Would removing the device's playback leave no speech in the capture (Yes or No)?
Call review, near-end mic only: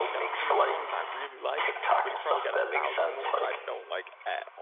No